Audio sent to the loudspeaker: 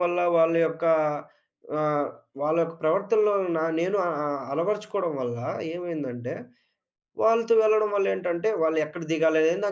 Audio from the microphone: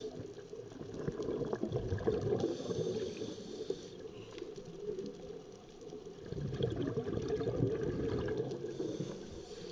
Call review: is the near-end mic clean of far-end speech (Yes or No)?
Yes